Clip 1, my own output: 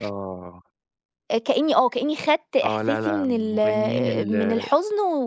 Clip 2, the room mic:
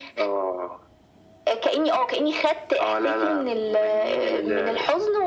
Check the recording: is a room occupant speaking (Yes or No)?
No